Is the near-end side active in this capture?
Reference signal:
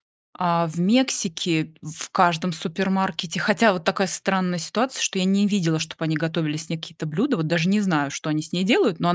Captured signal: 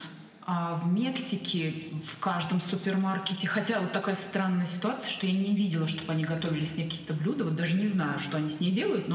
No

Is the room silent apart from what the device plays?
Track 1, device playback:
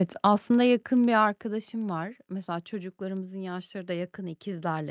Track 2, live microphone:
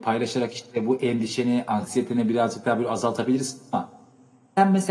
No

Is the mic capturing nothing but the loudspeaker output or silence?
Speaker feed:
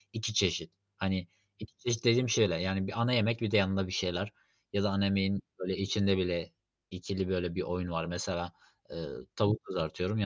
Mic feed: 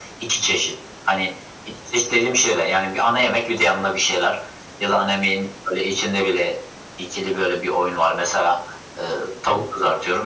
Yes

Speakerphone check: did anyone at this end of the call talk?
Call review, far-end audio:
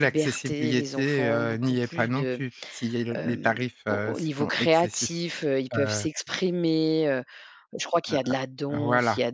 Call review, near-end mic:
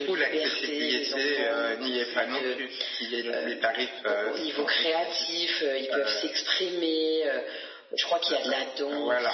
No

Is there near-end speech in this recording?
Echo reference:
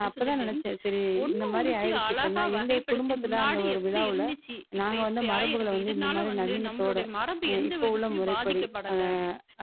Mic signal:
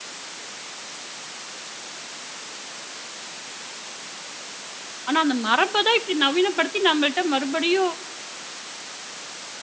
Yes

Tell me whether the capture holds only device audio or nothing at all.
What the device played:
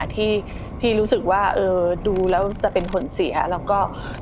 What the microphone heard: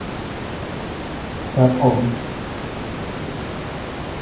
No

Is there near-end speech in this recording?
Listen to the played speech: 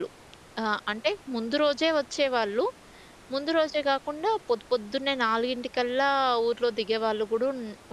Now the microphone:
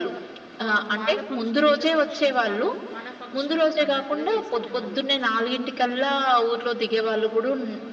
Yes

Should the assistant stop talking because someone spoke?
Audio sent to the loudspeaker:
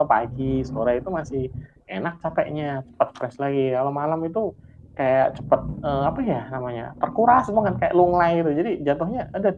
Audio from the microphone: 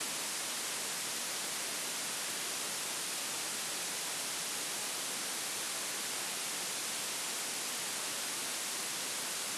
No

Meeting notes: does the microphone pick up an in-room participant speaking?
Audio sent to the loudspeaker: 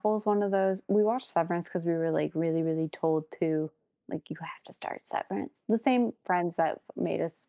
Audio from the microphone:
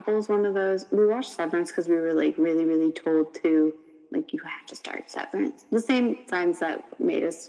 No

